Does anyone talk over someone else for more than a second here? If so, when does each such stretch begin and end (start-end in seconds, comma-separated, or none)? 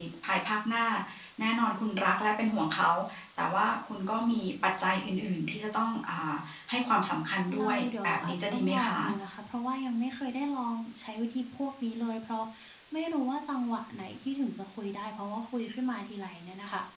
7.6-9.0